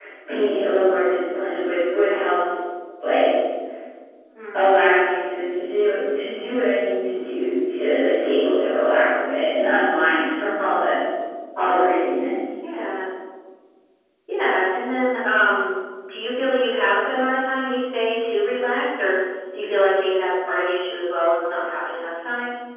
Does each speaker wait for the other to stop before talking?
Yes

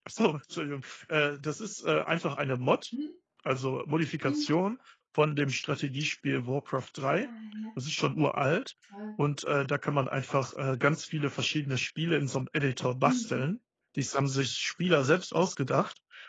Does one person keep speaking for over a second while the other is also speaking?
No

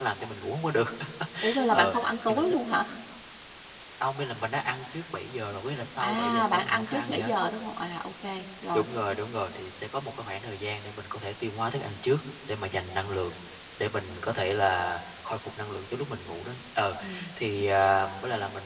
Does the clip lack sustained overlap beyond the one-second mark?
No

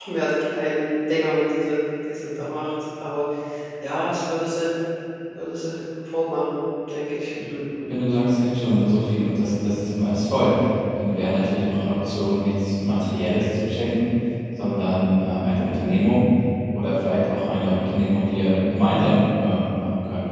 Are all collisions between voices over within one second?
Yes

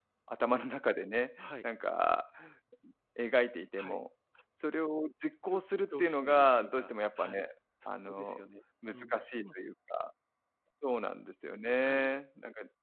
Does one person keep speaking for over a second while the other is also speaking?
Yes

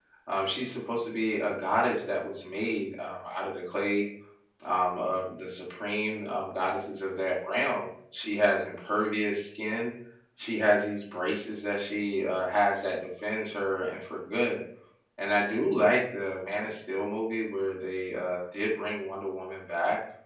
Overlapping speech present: No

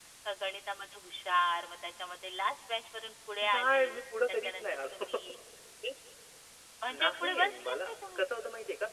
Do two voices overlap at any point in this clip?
Yes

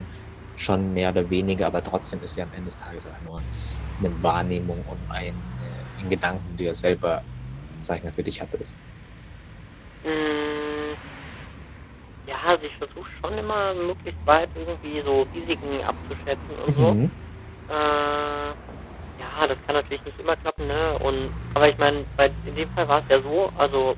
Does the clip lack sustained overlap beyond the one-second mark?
Yes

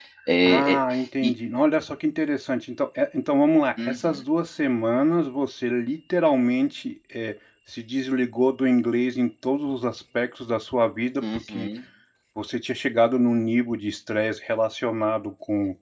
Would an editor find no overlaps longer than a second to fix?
Yes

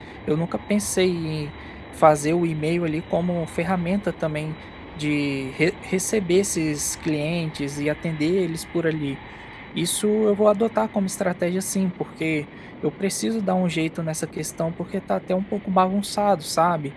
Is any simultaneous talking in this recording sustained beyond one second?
No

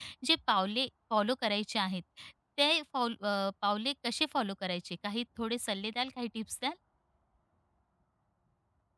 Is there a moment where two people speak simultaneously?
No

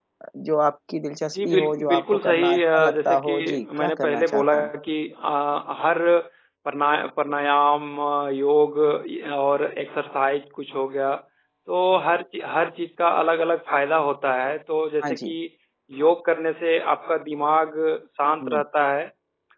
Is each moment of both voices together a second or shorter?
No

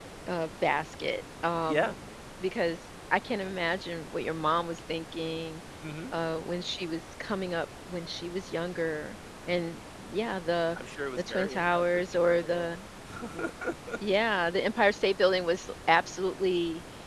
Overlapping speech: Yes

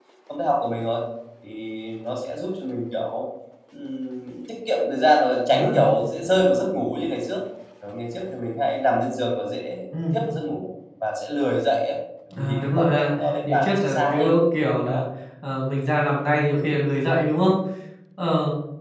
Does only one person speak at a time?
No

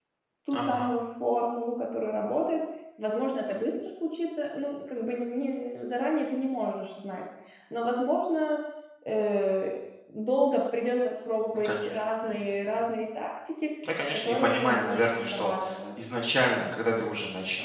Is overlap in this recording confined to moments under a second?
No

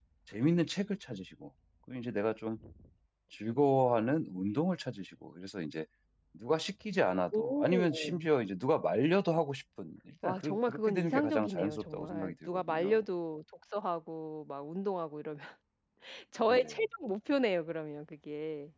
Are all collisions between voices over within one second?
No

